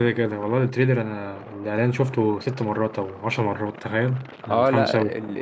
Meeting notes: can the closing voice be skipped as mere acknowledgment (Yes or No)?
No